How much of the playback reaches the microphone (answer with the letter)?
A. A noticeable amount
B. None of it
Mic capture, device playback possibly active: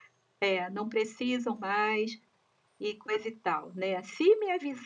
B